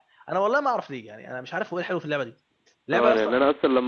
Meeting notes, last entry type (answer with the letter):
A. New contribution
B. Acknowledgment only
A